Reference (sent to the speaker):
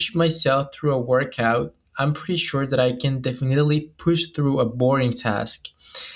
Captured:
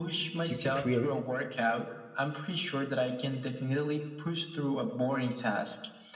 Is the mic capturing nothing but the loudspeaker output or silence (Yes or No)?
No